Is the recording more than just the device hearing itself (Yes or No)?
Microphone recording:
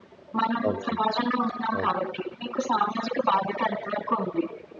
Yes